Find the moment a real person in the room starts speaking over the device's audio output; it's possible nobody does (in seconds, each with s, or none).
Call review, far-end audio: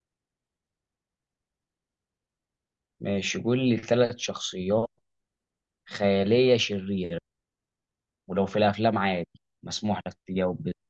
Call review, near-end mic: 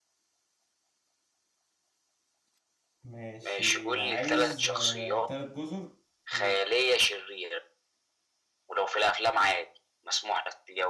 3.0 s